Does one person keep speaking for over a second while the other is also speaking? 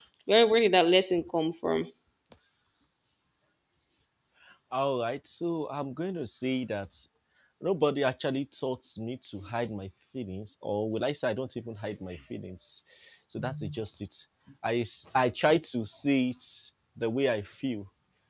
No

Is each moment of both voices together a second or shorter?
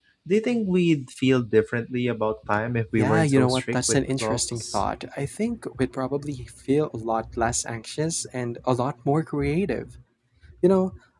No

